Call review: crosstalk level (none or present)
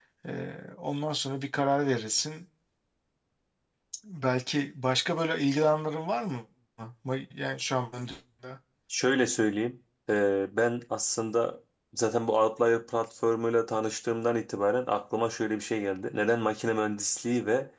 none